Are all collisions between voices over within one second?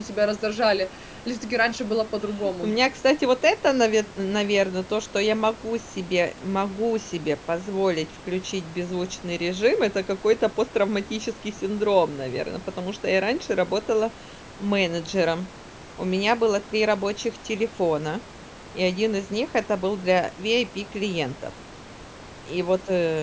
Yes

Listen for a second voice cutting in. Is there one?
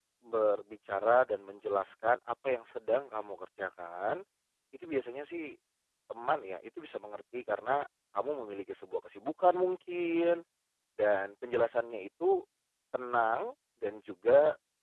No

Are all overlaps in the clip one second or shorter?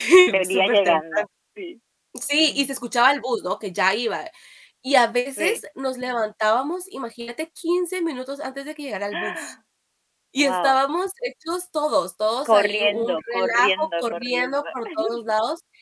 No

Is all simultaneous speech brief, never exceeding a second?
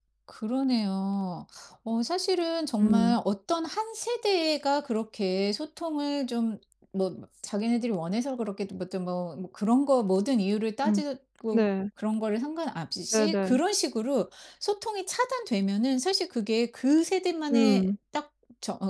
Yes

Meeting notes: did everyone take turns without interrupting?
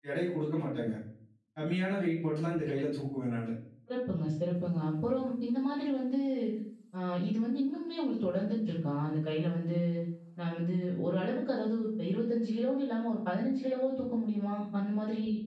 Yes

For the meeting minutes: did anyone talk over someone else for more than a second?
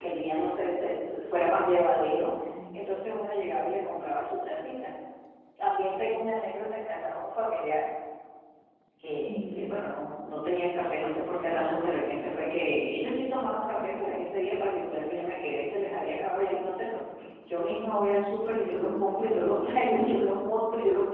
No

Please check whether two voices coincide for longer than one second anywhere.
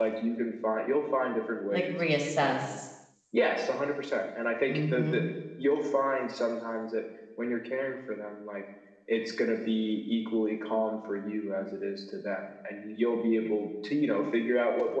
No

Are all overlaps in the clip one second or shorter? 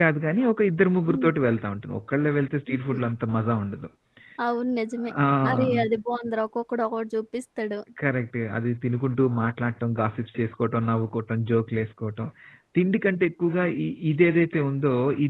Yes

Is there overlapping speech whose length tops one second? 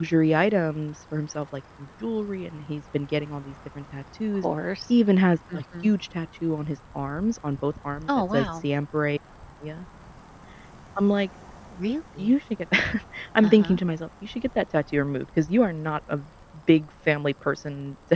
No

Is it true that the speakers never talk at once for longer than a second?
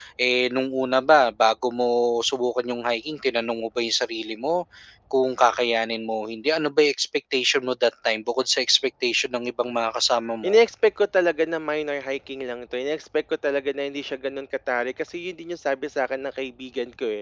Yes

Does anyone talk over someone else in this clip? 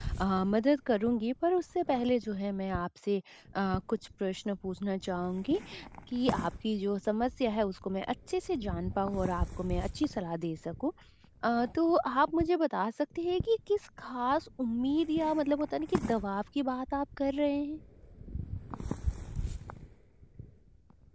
No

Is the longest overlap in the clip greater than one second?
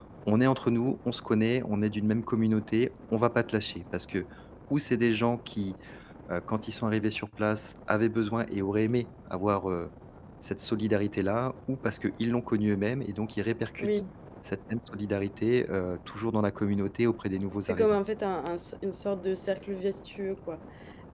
No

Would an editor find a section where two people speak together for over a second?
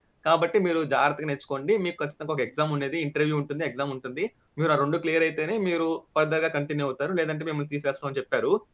No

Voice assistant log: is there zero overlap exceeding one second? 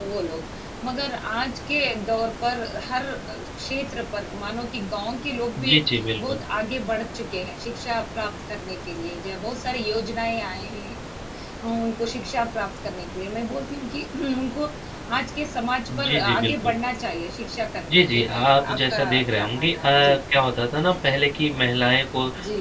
No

